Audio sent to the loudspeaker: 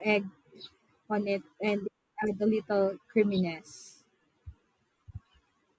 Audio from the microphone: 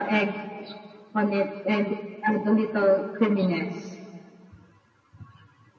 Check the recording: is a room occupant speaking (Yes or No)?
No